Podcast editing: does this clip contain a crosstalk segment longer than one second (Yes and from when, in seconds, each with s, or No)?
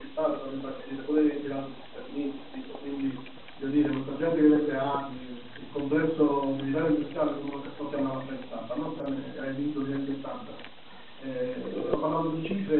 No